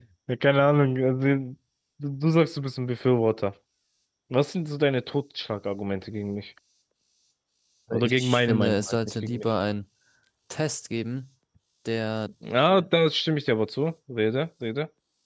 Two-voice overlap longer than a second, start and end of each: 8.0-9.5

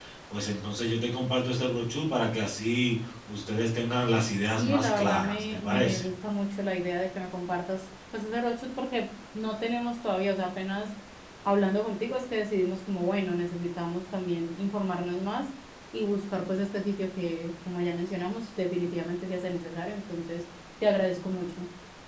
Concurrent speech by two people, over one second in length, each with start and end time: 4.4-6.1

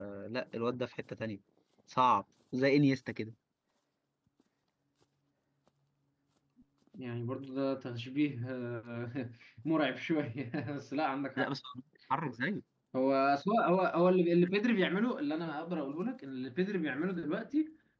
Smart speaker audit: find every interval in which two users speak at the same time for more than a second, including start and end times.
none

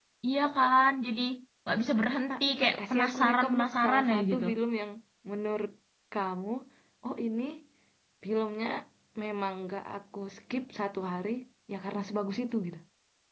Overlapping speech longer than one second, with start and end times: 2.8-4.4

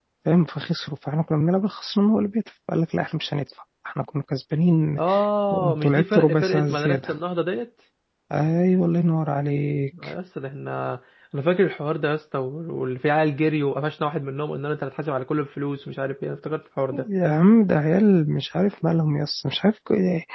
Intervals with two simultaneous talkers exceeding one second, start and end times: 5.5-7.0

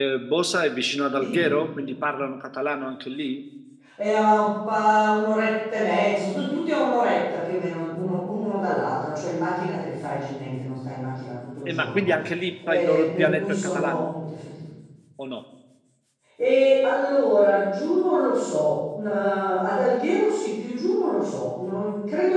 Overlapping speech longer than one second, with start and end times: 12.7-14.1

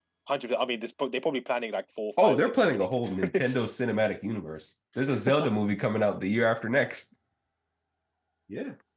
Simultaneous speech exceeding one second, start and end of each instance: 2.2-3.7

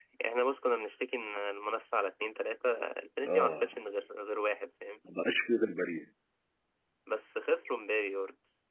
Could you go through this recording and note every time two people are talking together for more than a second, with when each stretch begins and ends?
none

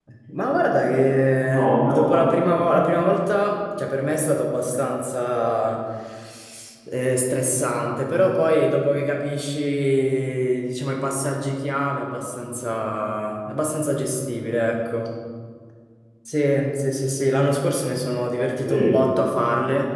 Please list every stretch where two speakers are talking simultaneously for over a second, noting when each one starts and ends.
1.5-2.9

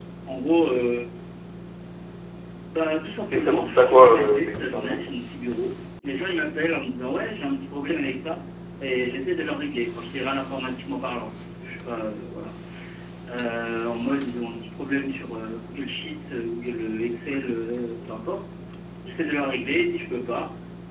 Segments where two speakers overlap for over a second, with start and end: 3.3-5.0

